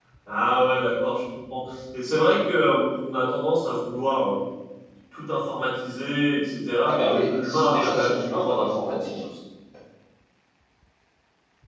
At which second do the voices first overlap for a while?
6.8 s

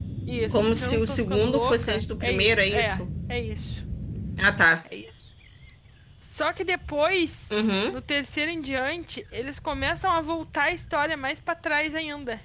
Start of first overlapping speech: 0.5 s

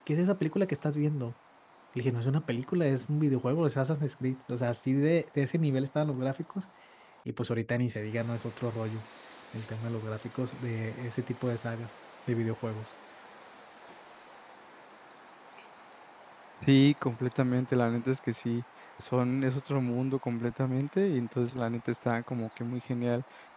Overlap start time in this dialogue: none

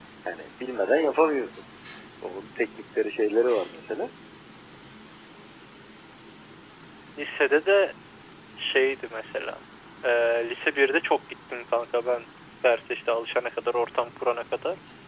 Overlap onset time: none

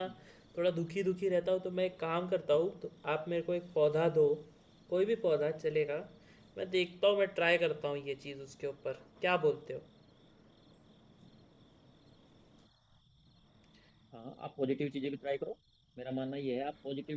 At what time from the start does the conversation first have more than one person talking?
none

